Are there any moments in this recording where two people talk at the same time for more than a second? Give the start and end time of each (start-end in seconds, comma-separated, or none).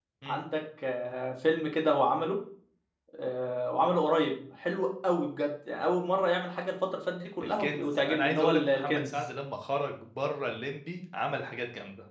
7.4-9.2